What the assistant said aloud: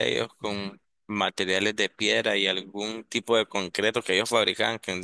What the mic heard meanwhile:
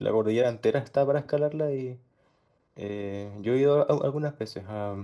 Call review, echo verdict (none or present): none